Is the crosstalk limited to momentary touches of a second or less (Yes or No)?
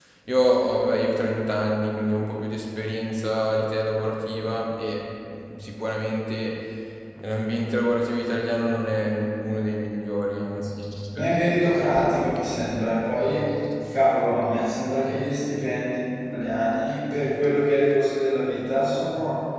Yes